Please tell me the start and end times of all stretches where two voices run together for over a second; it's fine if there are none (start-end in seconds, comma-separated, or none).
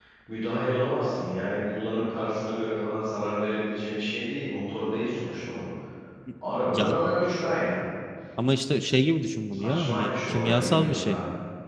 9.5-11.2